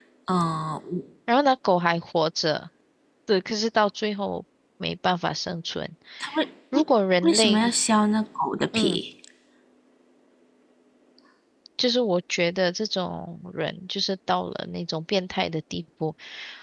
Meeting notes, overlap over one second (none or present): none